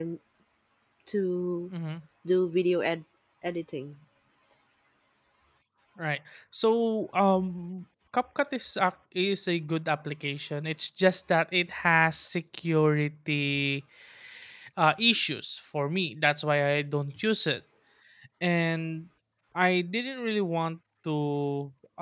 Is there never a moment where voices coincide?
Yes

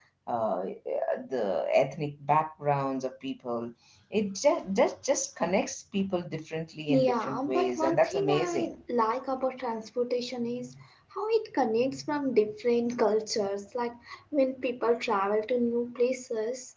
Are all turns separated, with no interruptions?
No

